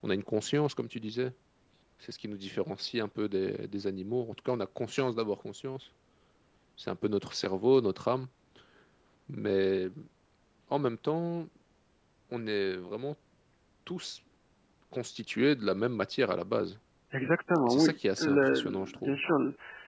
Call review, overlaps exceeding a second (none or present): present